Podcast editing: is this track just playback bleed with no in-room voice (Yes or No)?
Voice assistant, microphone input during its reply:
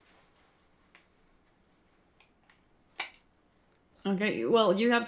No